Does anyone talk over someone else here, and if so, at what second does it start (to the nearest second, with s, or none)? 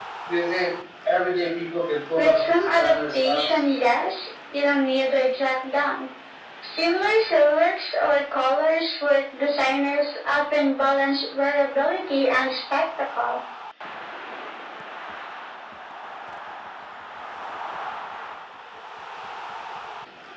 2 s